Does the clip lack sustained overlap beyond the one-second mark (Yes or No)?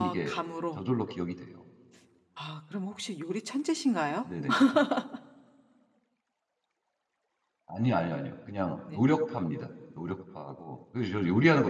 Yes